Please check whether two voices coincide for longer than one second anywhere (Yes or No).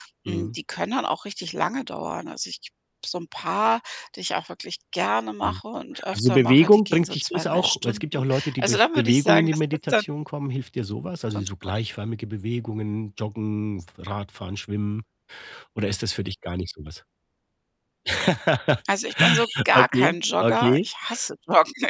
Yes